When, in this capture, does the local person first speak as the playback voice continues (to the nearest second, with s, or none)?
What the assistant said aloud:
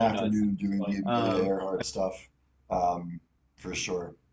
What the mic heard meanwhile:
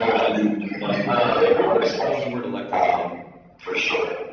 1 s